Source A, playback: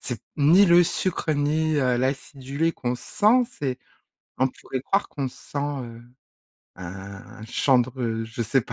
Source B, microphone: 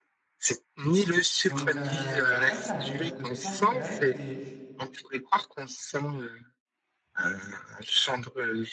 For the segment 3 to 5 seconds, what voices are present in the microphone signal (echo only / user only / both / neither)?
both